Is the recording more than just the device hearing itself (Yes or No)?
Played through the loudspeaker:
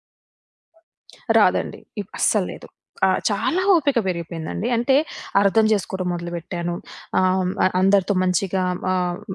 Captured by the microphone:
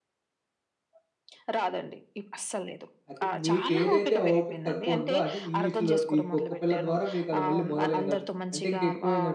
Yes